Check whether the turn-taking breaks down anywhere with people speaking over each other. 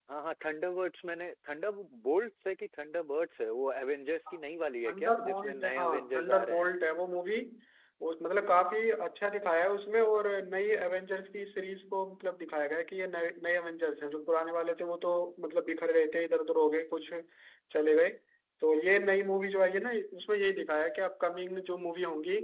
Yes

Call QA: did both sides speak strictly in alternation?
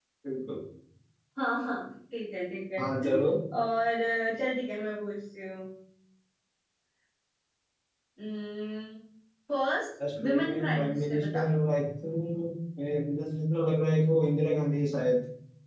No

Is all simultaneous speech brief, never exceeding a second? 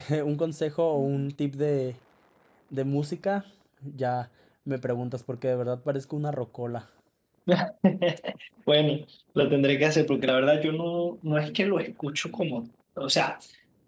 Yes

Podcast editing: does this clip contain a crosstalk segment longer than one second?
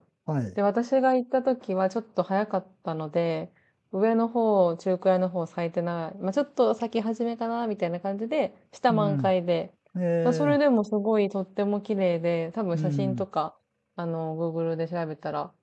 No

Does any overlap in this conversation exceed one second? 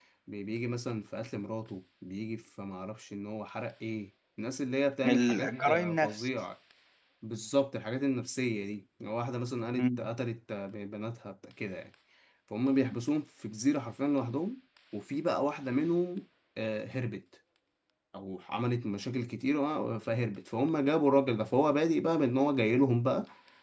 Yes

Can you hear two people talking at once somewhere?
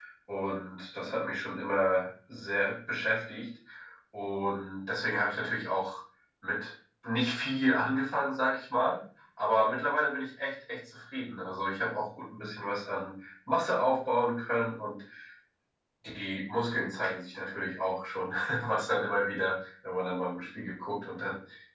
No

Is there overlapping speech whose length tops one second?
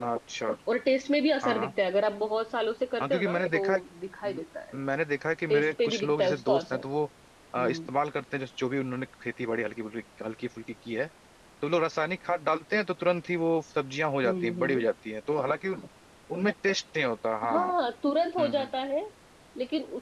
Yes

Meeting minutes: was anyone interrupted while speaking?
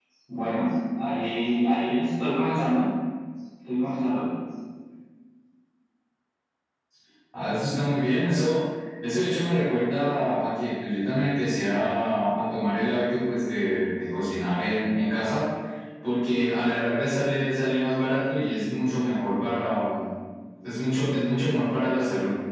No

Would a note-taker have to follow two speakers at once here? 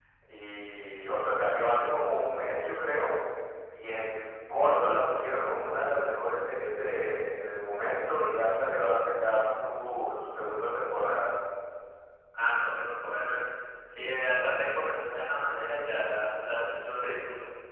No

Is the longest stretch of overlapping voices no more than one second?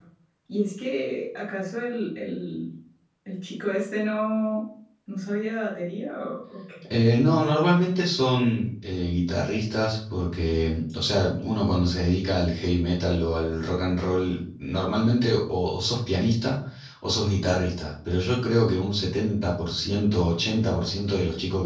Yes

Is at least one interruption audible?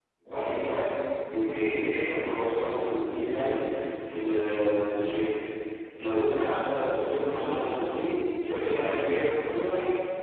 No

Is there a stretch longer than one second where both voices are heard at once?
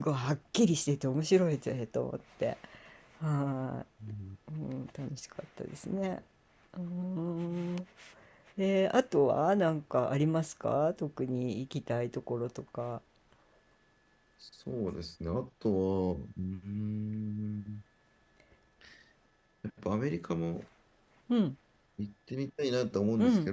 No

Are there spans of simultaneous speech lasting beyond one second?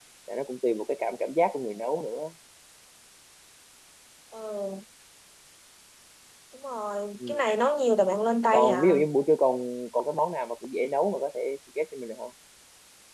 No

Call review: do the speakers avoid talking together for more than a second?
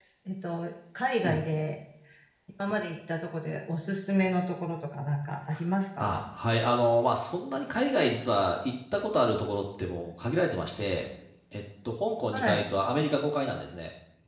Yes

